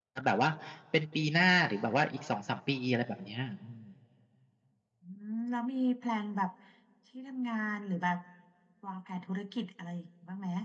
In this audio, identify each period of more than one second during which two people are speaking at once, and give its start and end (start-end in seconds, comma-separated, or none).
none